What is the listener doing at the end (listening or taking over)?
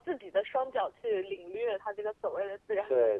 taking over